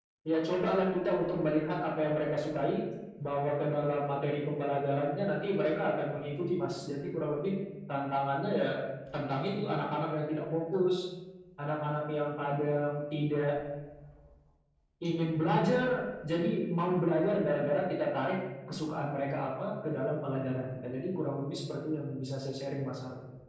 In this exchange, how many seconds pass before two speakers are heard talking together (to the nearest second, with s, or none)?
none